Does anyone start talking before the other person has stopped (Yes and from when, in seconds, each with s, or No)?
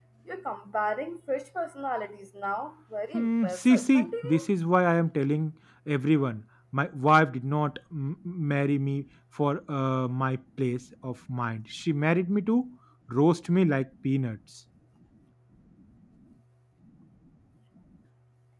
Yes, from 3.1 s